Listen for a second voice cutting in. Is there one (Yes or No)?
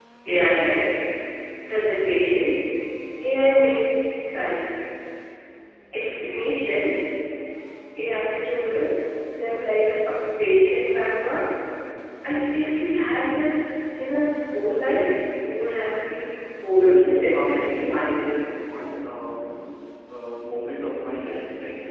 Yes